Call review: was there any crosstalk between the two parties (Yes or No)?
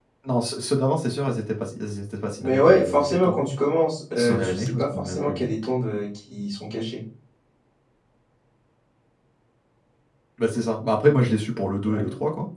Yes